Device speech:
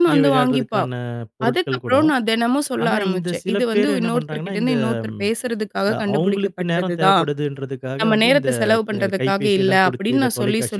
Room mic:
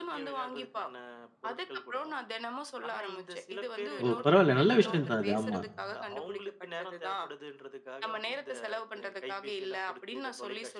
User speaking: Yes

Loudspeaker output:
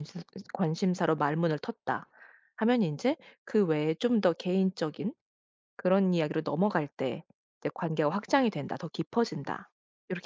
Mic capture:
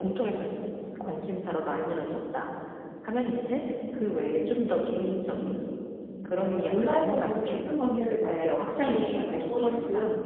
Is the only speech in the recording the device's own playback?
No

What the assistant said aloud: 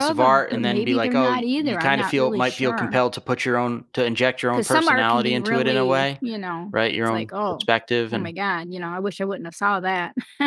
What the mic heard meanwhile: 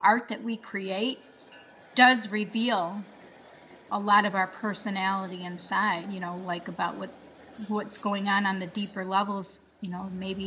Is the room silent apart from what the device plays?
No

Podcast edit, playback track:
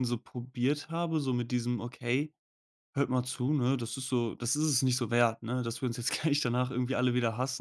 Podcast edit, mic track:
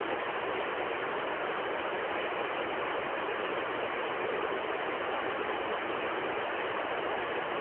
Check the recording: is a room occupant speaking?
No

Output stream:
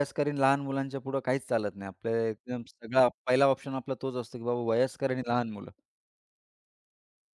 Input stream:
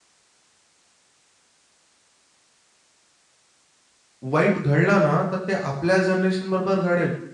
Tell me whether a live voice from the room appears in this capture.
Yes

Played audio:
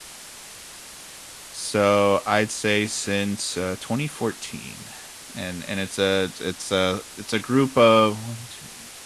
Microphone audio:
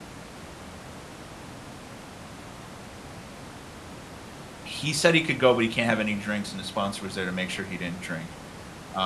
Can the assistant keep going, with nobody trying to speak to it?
No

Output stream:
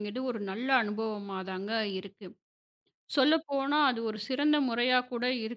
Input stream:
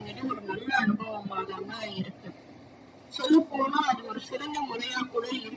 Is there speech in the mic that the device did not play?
No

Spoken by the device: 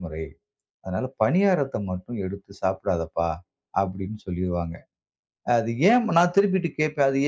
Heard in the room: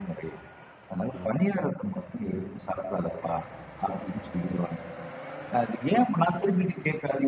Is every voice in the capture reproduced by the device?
Yes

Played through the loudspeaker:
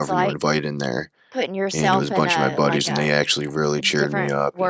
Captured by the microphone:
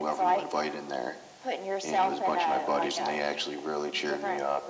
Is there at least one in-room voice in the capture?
No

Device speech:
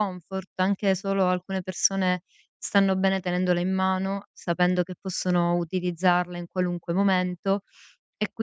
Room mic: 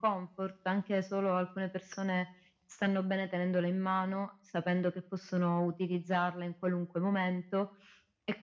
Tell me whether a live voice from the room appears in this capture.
No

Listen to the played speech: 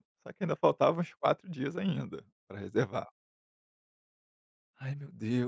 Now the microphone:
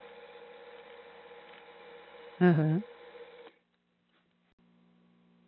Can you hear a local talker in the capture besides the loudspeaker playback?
Yes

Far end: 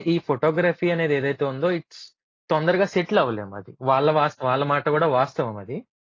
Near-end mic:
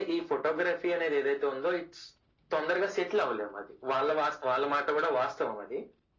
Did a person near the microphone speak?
No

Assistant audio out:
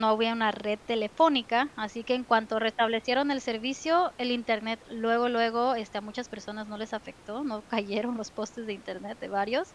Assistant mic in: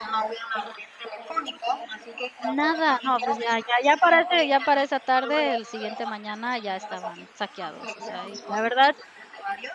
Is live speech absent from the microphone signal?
No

